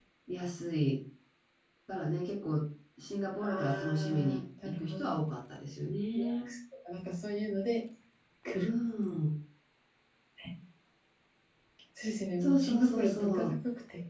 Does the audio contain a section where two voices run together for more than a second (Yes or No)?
Yes